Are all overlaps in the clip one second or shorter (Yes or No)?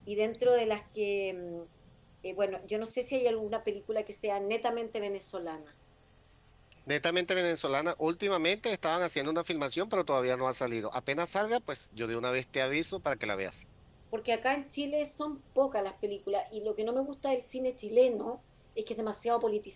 Yes